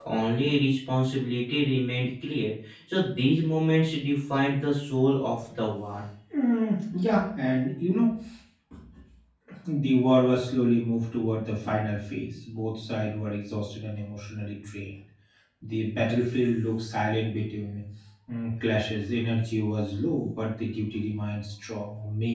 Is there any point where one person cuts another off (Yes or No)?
No